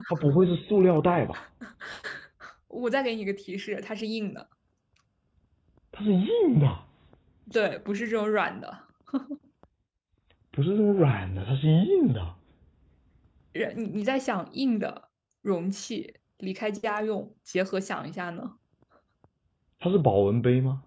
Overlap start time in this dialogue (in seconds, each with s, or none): none